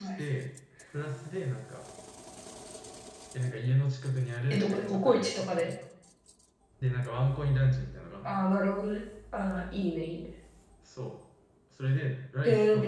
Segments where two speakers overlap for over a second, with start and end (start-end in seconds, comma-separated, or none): 4.5-5.7